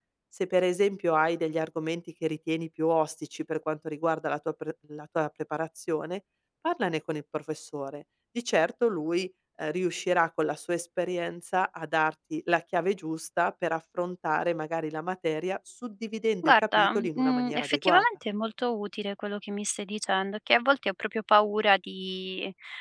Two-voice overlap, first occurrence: 16.4 s

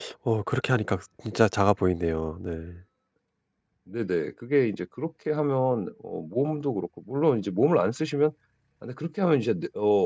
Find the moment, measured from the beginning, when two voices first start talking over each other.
none

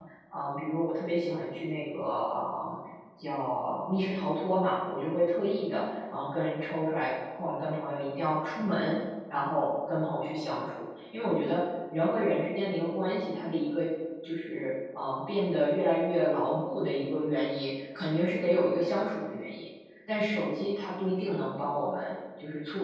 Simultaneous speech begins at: none

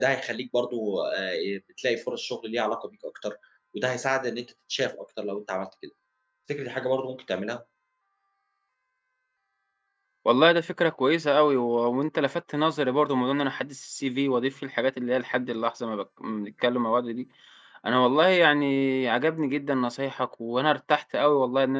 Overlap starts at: none

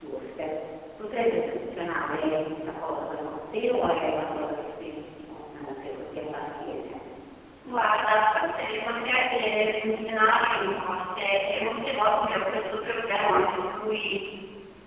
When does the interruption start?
none

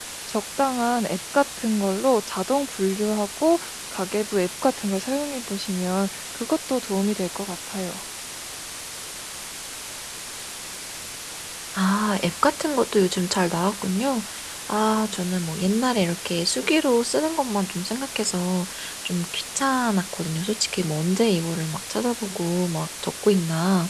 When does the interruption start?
none

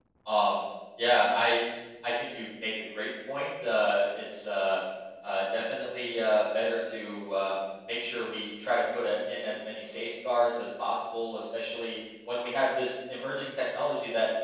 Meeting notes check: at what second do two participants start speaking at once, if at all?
none

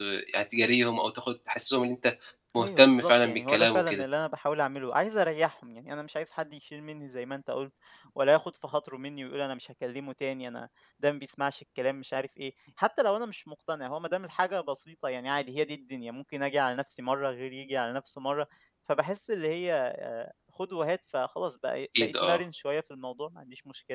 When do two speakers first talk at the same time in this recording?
2.6 s

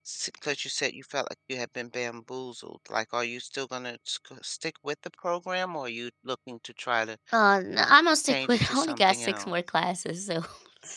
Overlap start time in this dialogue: 8.3 s

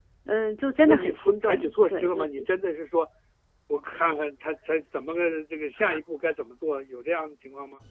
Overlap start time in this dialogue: 0.9 s

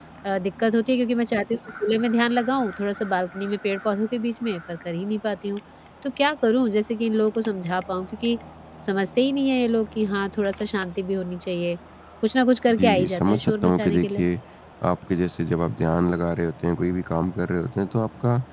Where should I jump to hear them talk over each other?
12.8 s

